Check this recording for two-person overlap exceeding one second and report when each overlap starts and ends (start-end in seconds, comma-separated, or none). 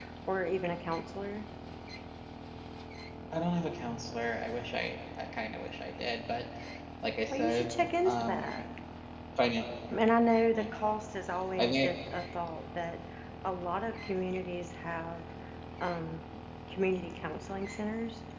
7.3-8.7